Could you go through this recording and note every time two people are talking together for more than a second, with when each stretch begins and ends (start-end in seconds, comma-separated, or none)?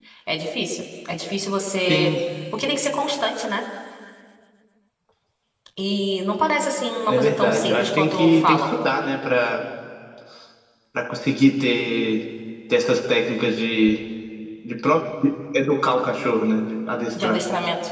7.1-8.7